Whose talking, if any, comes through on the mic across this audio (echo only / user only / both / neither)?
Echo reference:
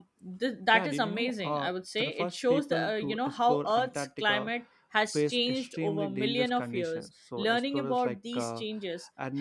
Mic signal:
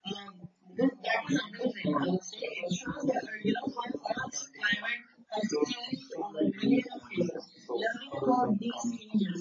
echo only